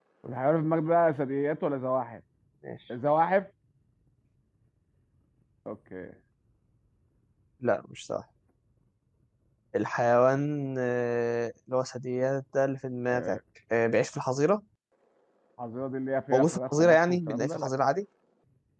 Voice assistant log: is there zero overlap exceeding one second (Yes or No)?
No